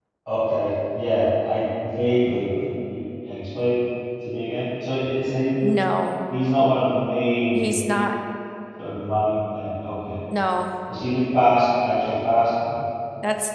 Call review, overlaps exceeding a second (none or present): none